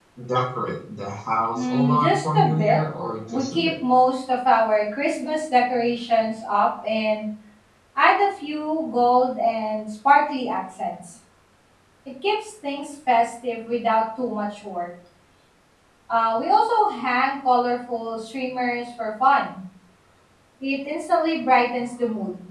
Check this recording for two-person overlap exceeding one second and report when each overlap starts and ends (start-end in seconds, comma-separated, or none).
1.5-2.8